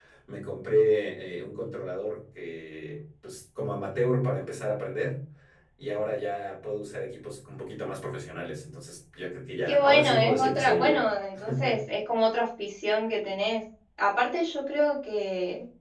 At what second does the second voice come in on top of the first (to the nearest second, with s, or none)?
10 s